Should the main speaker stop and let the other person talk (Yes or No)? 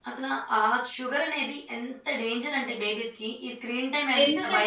Yes